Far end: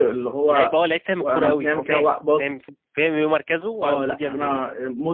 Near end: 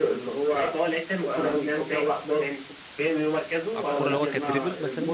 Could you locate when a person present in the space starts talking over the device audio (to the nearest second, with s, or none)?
4 s